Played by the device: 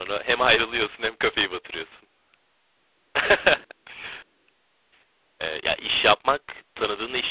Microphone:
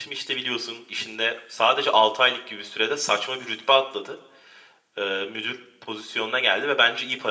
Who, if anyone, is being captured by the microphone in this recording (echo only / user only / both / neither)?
user only